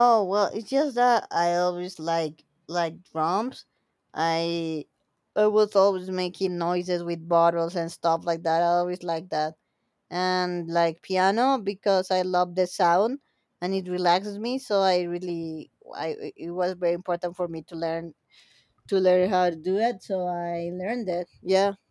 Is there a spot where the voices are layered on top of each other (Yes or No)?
No